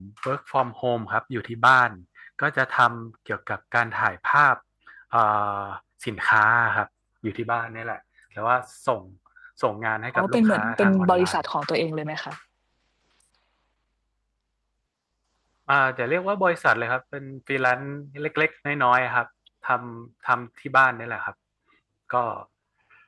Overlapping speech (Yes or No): Yes